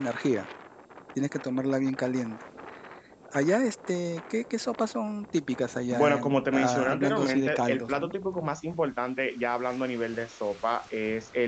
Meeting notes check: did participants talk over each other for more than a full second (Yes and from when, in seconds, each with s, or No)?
Yes, from 5.9 s